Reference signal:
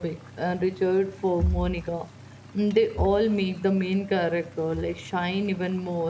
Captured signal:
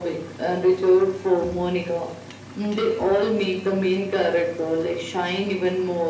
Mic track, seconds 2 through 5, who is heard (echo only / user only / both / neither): echo only